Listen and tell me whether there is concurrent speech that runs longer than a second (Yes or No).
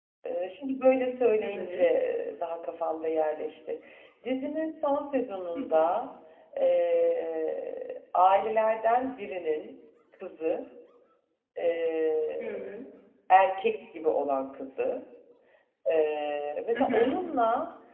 No